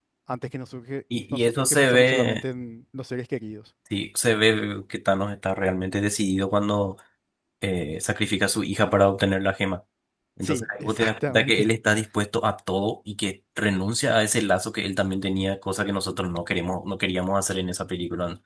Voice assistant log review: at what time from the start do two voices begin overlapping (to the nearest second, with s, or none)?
1 s